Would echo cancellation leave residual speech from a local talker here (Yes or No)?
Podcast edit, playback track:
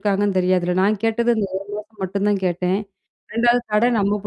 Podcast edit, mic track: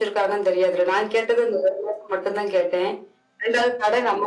No